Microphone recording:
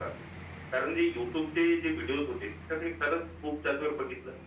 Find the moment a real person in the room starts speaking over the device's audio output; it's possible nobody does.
none

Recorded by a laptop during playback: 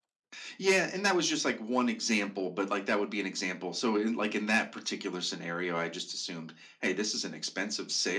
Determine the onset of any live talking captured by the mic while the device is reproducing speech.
none

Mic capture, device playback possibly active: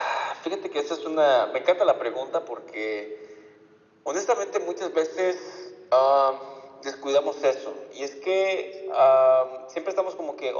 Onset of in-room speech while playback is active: none

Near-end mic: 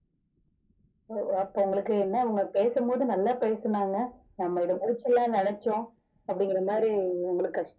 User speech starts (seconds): none

